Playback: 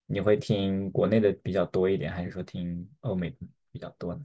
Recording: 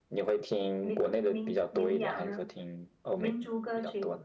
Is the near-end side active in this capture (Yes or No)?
Yes